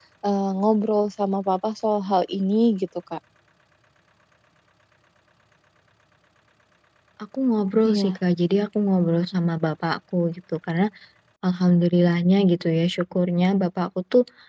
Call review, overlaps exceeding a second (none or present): none